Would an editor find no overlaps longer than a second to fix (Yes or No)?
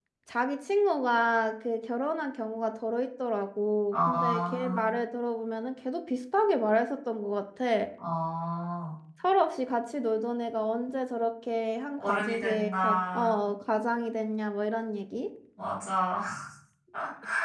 No